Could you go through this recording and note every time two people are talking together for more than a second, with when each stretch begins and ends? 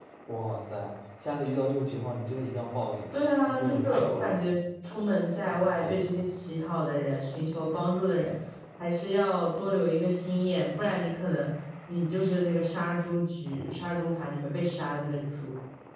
3.1-4.5

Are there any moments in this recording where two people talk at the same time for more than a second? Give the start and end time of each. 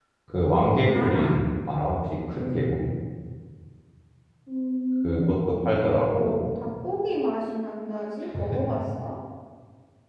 5.0-6.4

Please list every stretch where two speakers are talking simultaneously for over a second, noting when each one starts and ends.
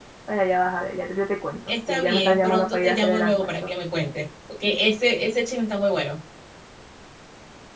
1.9-3.7

